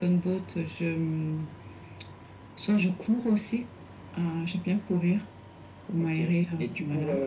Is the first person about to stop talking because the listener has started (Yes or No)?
Yes